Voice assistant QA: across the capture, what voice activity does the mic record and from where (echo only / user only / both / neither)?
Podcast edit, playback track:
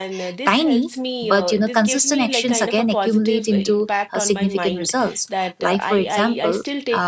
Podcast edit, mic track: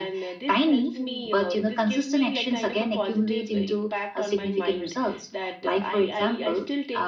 both